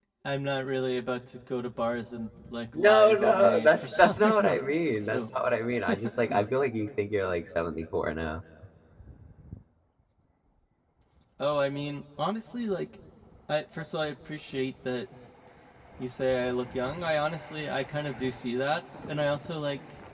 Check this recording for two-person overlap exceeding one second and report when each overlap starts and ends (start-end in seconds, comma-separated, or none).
2.8-5.2